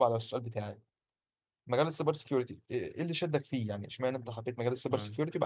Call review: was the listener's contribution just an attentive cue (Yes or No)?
Yes